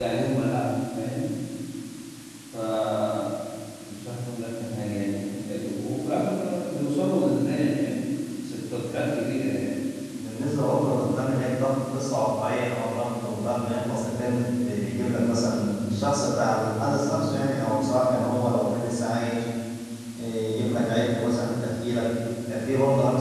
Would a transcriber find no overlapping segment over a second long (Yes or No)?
Yes